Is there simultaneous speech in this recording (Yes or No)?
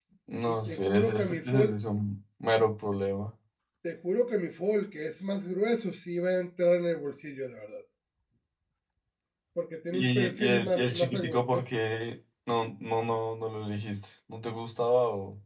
Yes